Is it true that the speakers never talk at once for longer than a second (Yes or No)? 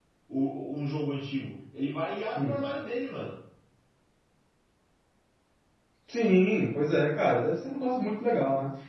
Yes